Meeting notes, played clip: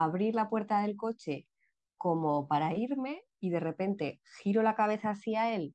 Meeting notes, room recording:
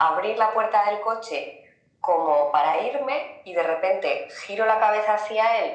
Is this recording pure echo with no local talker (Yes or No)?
Yes